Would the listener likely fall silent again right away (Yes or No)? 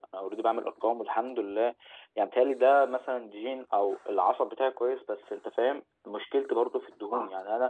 Yes